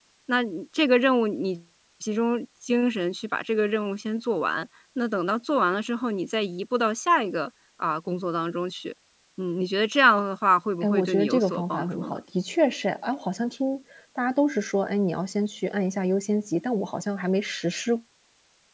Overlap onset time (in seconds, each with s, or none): 10.8 s